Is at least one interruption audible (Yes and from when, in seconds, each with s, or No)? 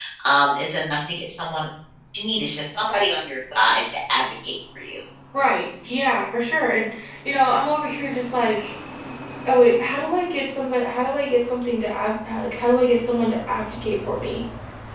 No